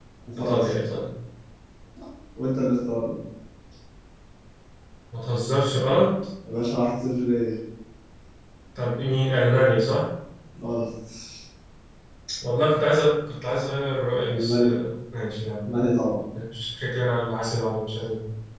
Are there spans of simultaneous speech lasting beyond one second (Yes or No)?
No